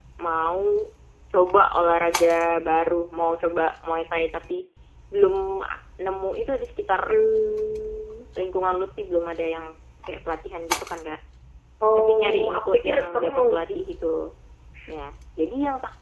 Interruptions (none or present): present